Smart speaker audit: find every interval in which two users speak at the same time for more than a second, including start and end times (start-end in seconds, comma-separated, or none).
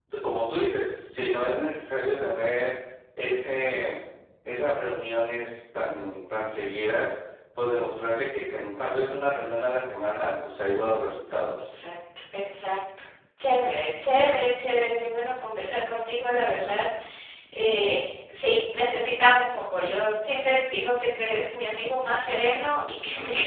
none